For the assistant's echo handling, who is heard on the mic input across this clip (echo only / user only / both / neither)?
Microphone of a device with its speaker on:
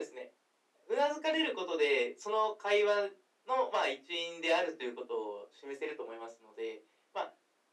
echo only